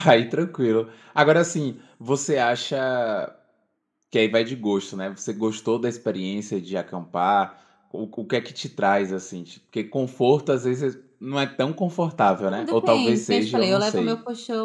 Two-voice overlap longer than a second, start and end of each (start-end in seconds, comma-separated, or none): 12.5-14.2